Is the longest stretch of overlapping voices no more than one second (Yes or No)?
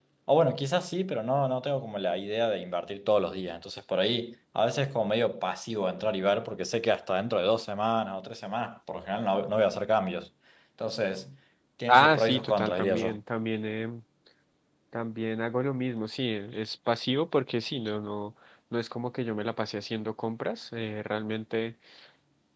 No